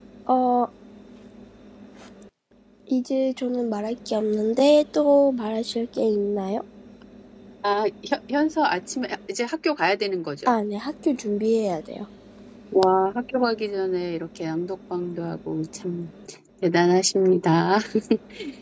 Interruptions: none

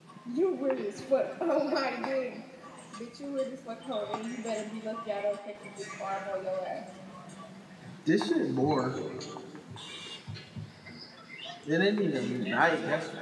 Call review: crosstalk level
none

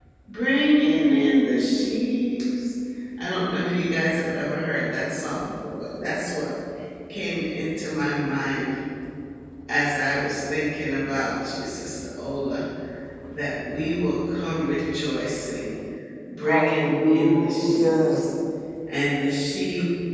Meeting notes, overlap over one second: present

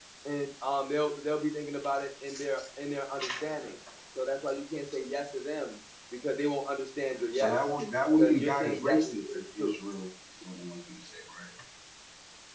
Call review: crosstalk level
present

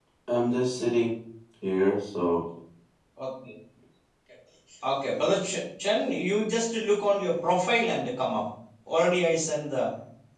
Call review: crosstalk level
none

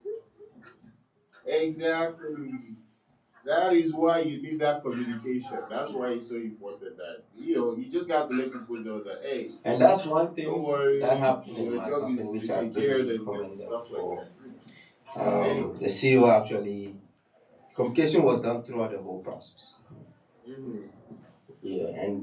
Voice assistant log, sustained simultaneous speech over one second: present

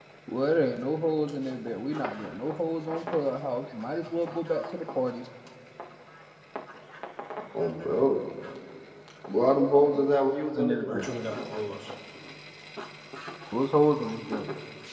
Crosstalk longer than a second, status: present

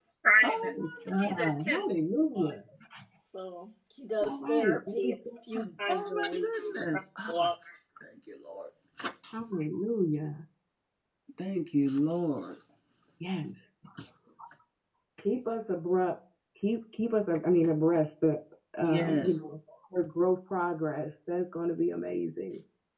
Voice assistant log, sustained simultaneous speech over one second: present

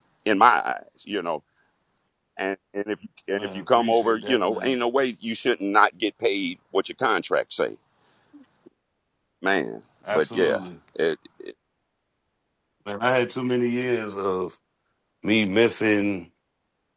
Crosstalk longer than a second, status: present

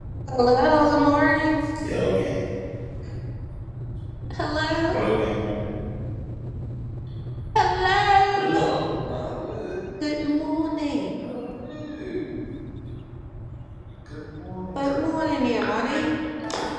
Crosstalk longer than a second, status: none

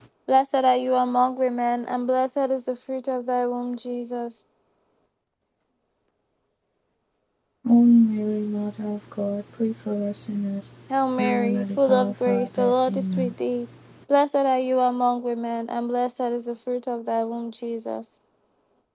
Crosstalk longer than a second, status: present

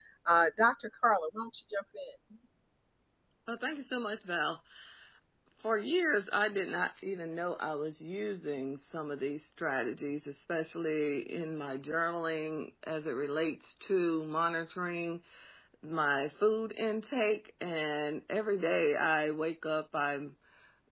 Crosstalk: none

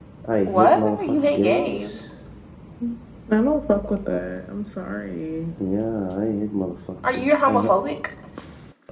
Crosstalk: present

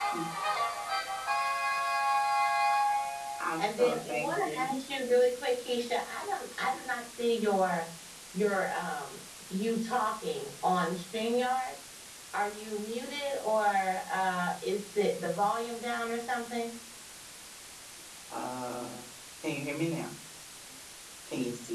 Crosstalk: present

